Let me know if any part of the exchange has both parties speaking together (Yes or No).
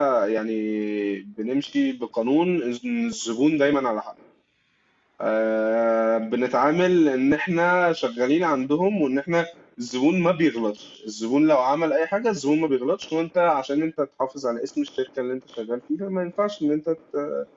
No